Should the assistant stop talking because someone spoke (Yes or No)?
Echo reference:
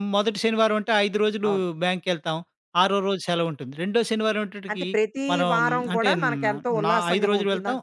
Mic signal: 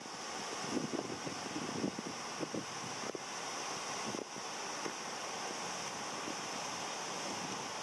No